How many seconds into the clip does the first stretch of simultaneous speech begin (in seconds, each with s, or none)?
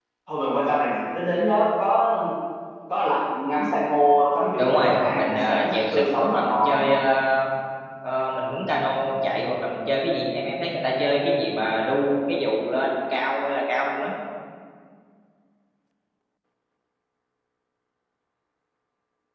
4.6 s